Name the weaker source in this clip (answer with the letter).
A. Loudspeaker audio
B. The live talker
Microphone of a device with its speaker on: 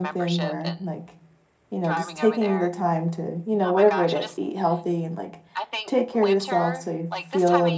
A